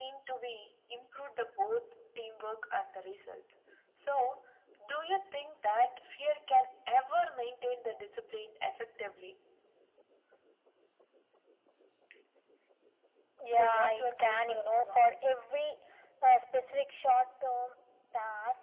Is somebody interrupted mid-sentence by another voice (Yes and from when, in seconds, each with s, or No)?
Yes, from 13.5 s